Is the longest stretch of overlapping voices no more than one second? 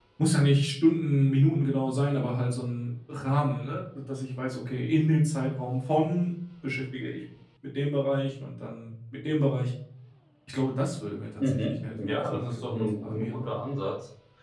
No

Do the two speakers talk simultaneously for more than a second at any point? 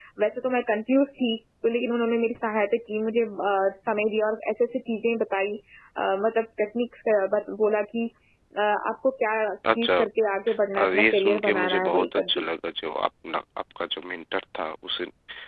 Yes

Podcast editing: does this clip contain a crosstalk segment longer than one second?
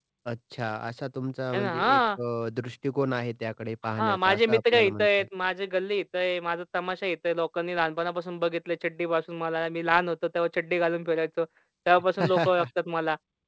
Yes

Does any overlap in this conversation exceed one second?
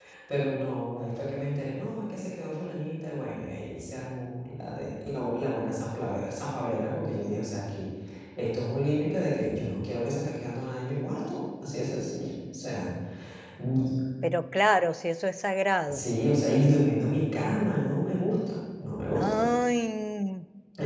No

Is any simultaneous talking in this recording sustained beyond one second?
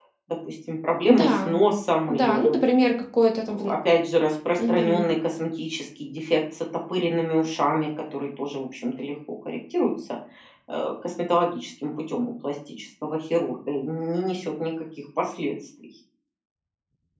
No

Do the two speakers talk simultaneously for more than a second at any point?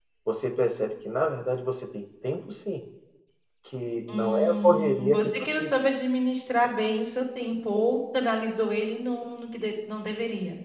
Yes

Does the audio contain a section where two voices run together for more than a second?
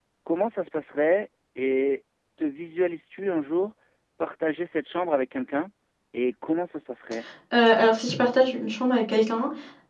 No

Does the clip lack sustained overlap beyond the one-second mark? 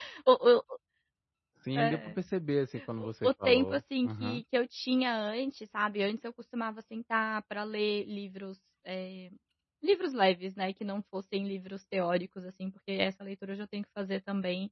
No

